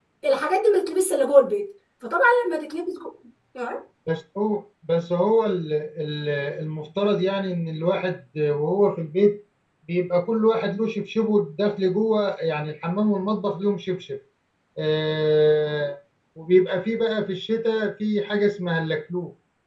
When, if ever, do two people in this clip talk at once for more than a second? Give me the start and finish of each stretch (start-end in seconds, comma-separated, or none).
none